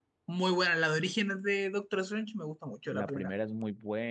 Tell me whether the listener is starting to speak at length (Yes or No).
Yes